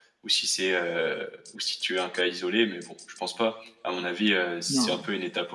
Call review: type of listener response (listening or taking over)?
listening